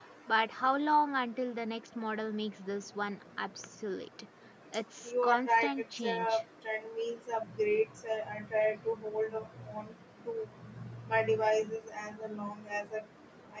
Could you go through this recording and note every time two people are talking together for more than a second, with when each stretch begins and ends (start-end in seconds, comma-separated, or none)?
5.1-6.4